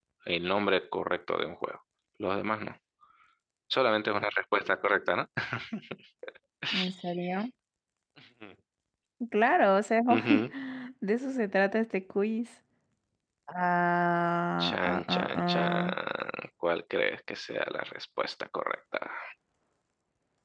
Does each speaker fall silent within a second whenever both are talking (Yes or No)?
No